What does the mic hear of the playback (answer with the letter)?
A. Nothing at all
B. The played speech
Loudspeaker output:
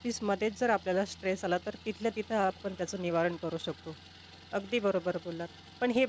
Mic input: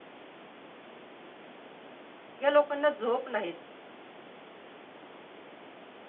A